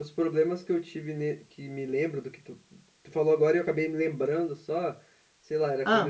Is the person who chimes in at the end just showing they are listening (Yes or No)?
Yes